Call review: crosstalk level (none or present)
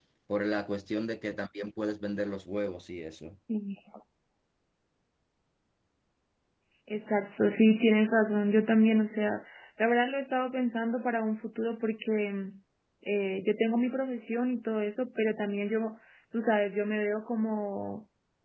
none